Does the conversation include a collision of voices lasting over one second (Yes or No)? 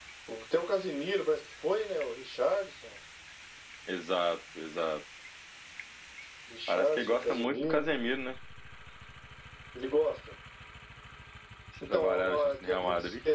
Yes